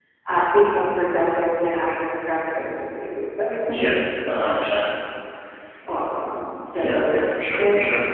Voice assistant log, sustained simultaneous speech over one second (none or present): none